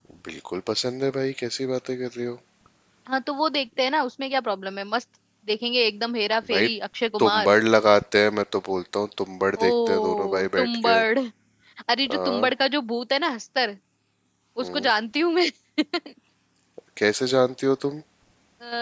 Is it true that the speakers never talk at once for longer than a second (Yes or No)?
No